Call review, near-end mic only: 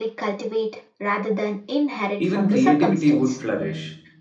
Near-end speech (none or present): present